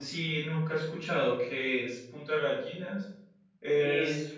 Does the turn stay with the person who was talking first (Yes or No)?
Yes